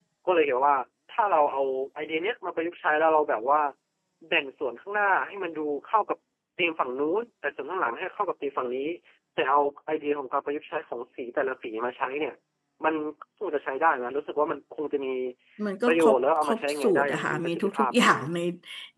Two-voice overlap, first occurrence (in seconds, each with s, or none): 15.9 s